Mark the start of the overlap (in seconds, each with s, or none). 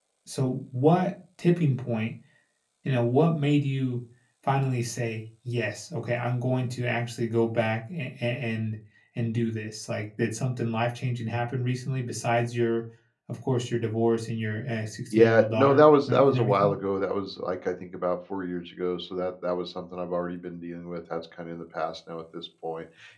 15.1 s